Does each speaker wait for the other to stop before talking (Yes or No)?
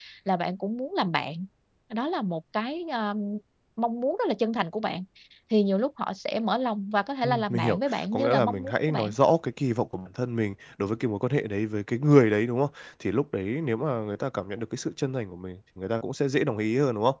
No